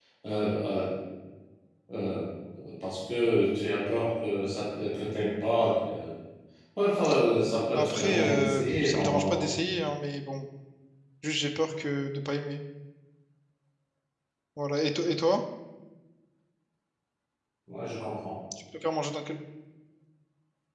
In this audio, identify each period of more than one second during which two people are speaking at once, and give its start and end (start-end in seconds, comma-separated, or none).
7.7-9.5